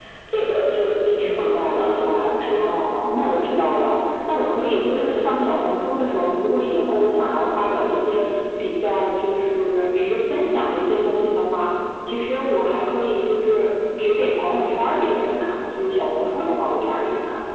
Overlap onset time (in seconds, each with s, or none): 1.2 s